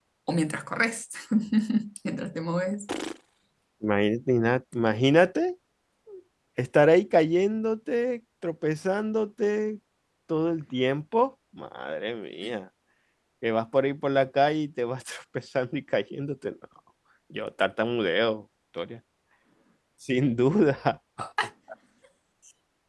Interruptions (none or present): none